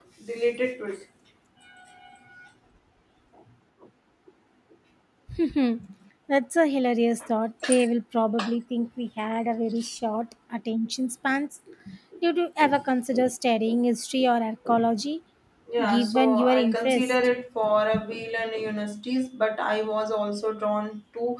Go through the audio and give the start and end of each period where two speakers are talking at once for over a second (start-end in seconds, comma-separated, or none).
15.9-17.2